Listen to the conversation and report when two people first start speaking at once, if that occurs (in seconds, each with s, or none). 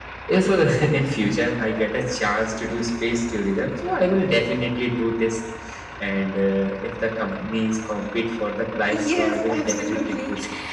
8.9 s